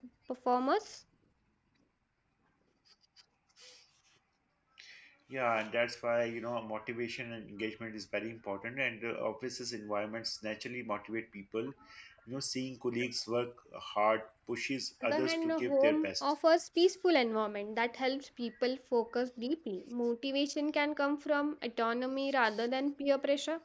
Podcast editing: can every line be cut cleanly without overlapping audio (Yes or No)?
No